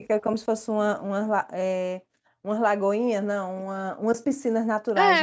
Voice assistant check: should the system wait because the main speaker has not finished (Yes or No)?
No